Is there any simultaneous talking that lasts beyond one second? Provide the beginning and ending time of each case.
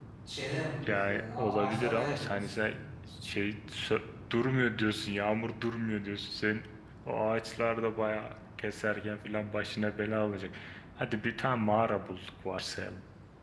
0.8-2.5

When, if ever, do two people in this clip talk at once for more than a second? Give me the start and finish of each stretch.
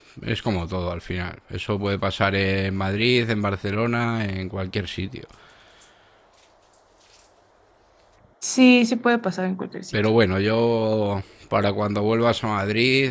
none

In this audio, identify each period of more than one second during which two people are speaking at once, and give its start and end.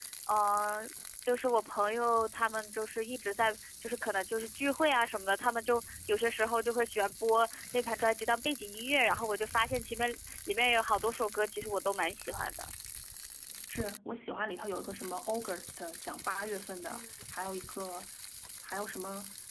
none

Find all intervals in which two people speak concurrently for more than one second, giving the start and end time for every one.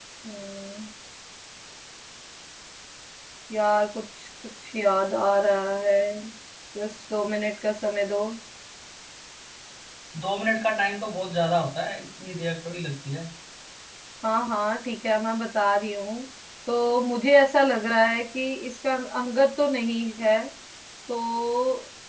none

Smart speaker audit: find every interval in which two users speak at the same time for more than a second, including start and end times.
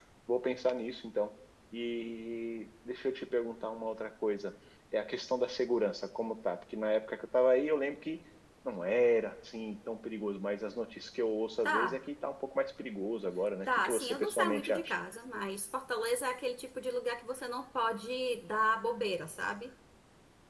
13.7-14.9

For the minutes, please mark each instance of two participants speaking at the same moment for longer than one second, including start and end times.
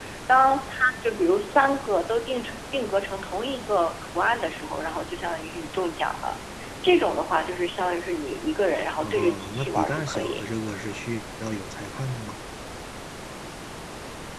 9.0-10.4

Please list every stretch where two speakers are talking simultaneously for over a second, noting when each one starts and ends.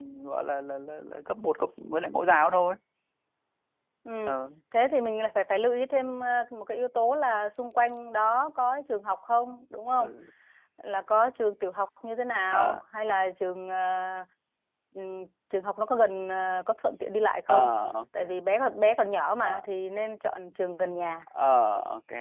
none

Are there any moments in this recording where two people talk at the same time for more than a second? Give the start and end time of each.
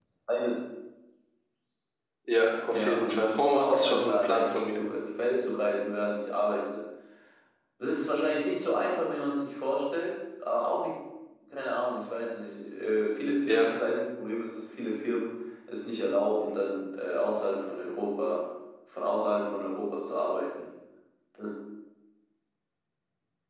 2.7-4.8

